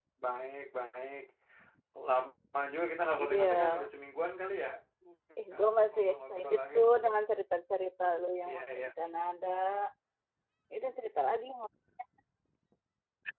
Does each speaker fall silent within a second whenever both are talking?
No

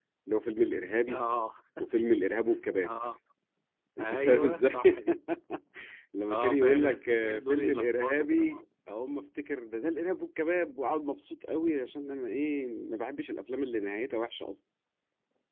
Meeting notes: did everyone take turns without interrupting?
No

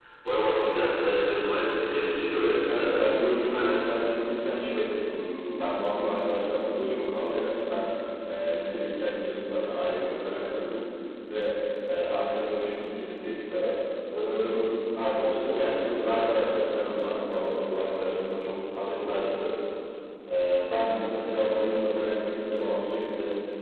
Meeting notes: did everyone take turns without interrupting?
No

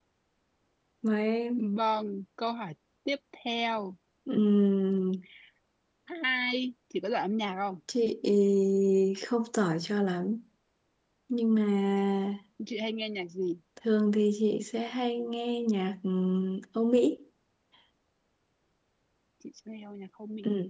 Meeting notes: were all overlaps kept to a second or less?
Yes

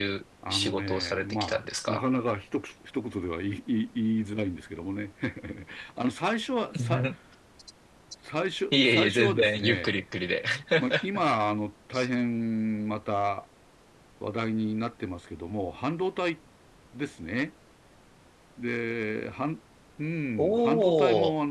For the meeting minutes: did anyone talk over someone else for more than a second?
Yes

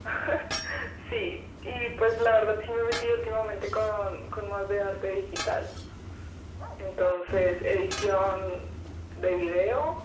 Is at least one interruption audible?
No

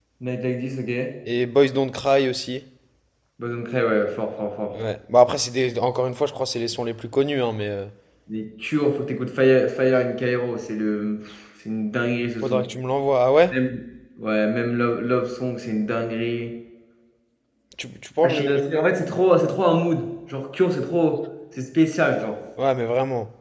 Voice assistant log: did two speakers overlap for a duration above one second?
No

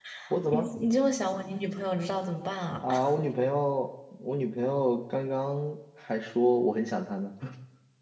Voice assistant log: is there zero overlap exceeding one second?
Yes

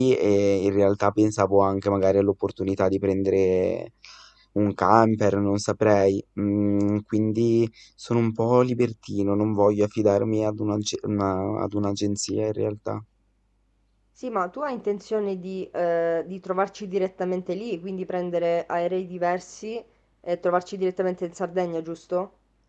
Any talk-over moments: No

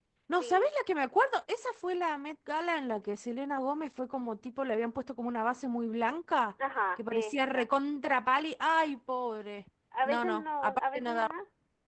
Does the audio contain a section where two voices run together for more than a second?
Yes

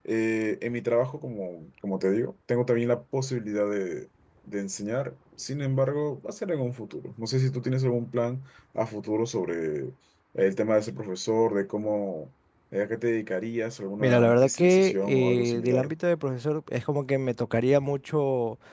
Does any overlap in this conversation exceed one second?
Yes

